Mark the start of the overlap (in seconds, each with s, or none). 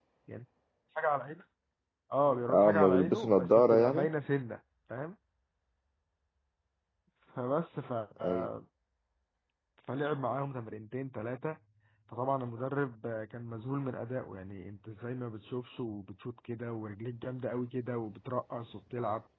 2.5 s